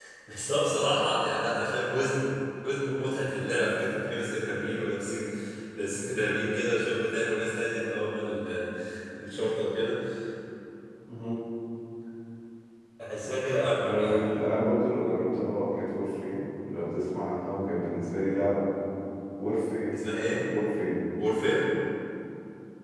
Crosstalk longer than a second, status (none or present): none